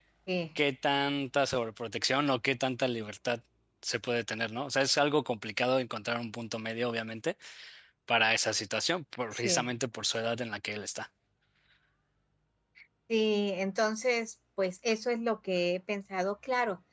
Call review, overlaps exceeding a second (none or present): none